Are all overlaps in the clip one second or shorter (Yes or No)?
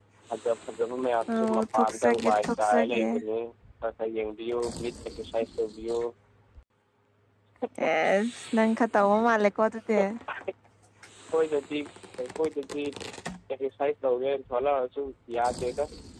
No